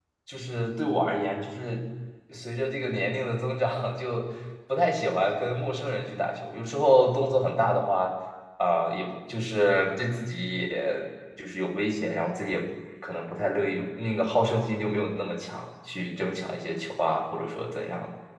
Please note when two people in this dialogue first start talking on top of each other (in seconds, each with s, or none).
none